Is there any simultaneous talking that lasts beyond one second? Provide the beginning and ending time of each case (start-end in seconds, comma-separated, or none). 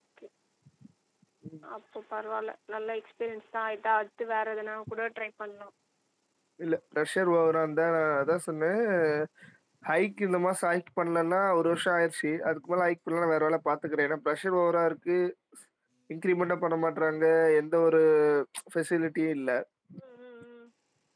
none